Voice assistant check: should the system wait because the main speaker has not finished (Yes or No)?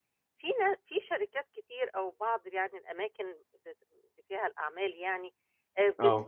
Yes